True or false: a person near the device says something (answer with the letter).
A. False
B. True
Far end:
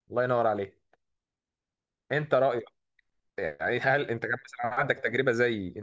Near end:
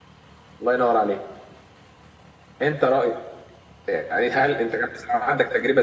A